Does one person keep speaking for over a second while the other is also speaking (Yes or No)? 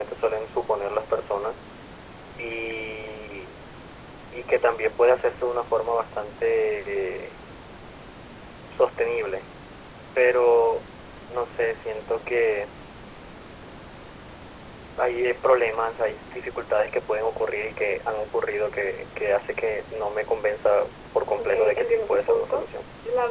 Yes